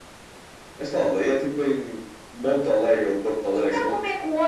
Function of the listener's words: taking over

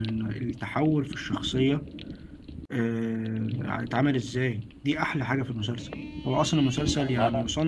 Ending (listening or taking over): listening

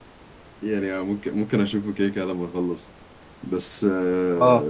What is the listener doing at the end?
listening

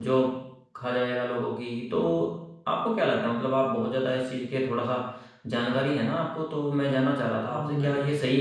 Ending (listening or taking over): listening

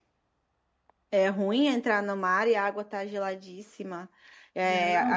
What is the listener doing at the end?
listening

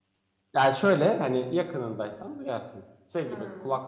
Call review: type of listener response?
listening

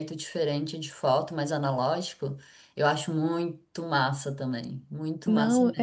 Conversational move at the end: taking over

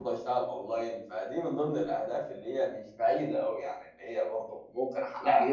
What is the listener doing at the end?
taking over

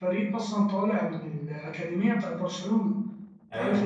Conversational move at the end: taking over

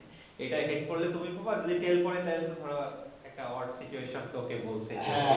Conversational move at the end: taking over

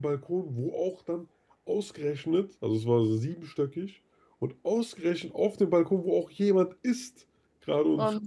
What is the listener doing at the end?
listening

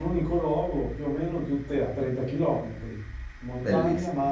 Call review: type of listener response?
listening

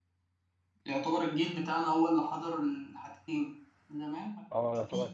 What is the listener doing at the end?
taking over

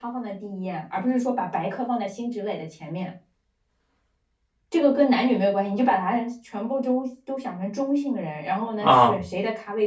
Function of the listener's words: listening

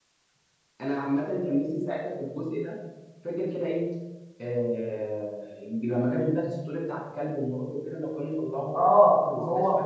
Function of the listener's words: taking over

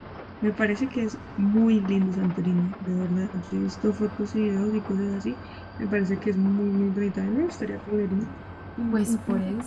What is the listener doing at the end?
taking over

